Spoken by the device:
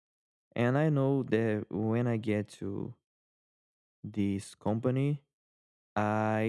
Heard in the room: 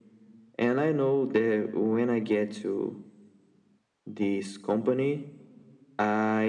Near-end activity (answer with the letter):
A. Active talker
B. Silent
B